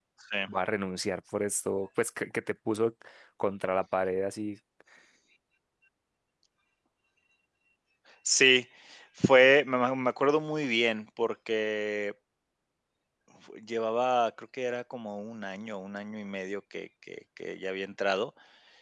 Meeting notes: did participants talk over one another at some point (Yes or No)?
No